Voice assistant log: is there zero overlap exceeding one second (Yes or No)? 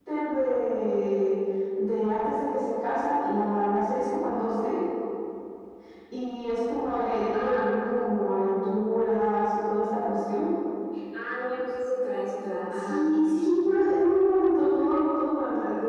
Yes